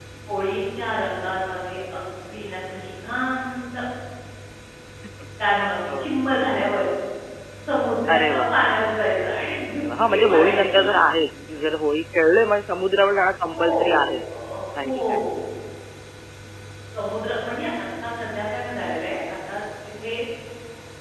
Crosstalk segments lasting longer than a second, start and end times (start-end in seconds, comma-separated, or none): 9.8-11.0